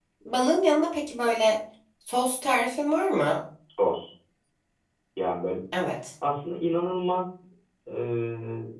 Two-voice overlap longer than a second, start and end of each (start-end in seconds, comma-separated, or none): none